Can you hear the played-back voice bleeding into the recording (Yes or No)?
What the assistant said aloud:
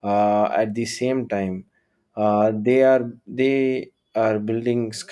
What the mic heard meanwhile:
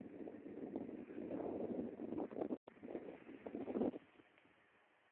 No